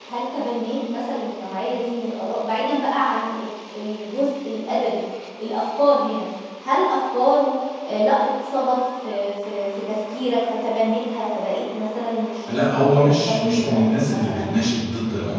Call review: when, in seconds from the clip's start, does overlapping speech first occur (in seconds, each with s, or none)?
12.5 s